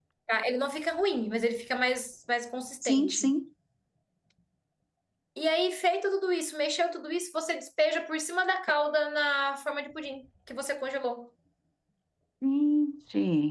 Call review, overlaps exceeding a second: none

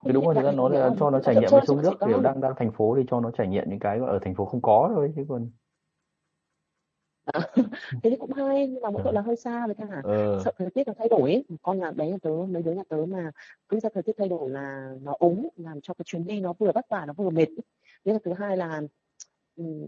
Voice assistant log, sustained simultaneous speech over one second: present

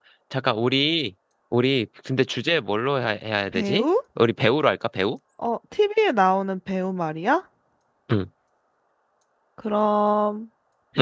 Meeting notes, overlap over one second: none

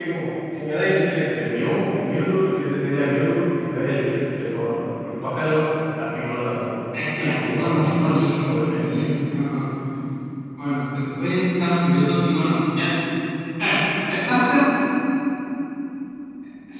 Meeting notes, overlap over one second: present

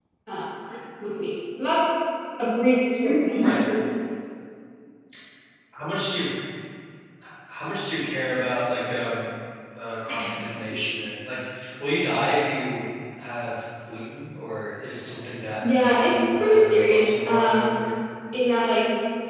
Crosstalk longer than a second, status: present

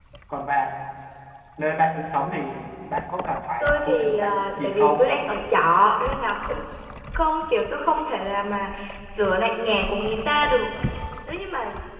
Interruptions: present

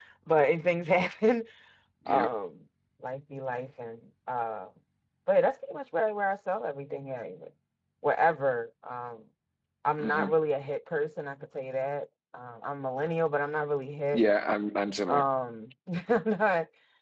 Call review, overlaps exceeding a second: none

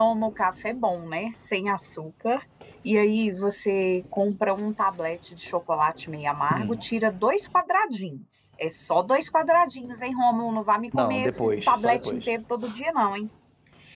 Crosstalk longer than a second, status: present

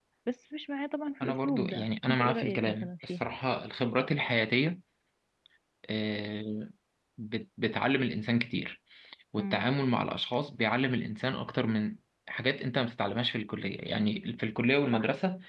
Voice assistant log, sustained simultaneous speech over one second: present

